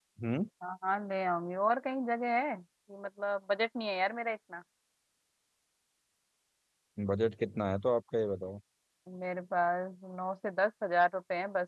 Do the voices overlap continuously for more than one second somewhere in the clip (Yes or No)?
No